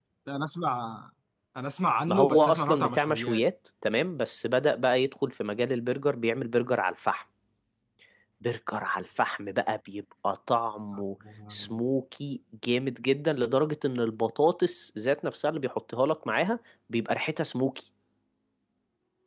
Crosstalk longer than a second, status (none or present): present